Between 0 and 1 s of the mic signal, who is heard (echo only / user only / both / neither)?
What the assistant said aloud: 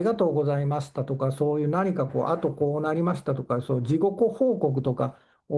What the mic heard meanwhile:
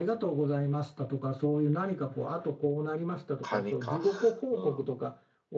echo only